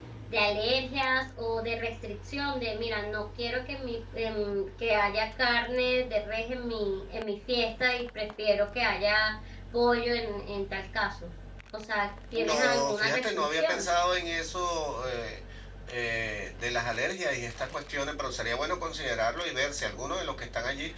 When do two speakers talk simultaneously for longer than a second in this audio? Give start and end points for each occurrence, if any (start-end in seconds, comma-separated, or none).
12.4-13.9